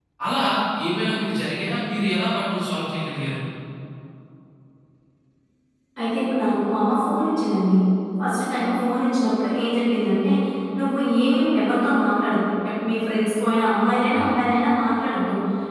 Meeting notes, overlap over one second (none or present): none